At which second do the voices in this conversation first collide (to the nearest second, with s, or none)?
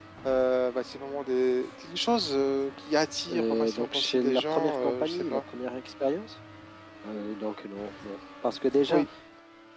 3 s